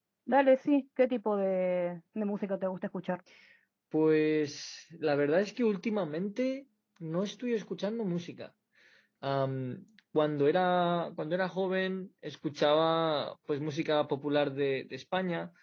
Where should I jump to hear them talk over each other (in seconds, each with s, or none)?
none